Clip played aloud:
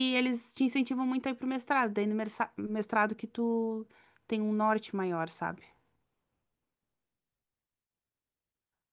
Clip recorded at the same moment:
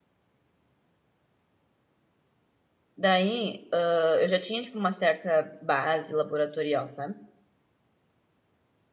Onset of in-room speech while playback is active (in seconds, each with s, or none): 3.0 s